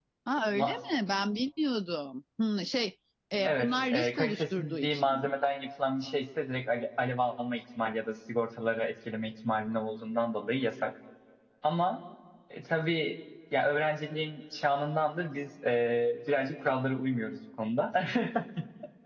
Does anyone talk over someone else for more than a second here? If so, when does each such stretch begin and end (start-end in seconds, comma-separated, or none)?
3.5-5.3